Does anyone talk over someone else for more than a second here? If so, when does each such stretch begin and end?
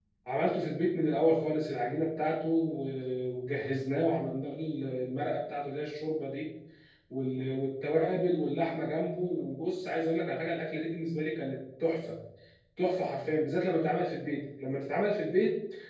none

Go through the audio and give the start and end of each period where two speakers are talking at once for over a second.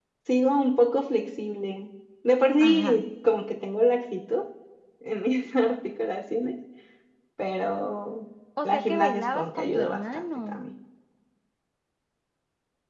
8.6-10.6

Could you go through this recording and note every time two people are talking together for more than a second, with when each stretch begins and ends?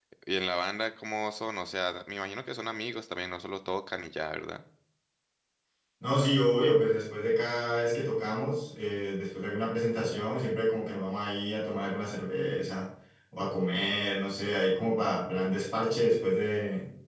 none

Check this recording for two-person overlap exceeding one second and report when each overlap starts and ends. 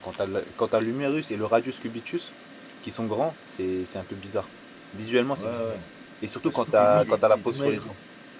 6.5-7.9

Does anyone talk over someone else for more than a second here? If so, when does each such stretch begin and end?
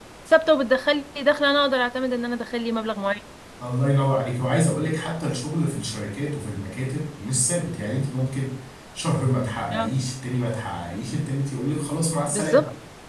none

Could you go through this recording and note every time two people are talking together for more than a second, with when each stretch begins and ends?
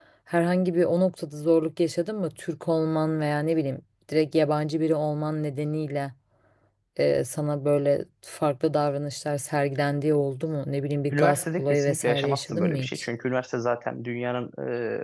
11.1-13.0

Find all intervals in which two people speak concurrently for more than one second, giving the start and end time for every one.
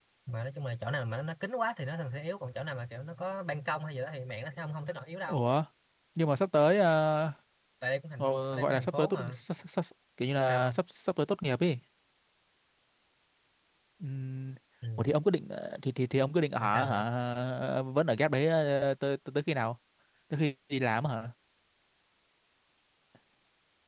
8.2-9.4

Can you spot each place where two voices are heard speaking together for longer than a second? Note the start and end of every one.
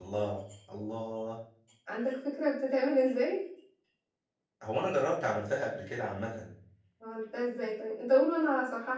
none

